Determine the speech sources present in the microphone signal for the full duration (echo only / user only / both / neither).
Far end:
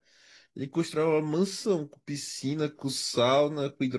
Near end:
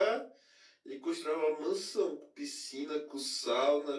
echo only